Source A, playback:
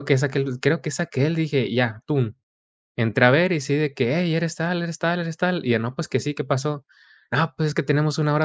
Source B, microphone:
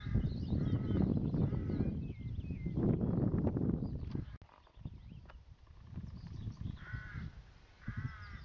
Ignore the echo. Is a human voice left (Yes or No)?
No